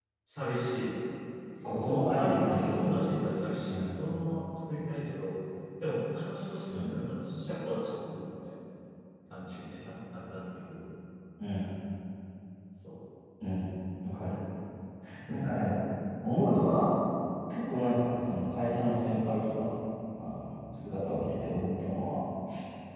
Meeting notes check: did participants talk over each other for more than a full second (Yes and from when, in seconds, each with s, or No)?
Yes, from 1.6 s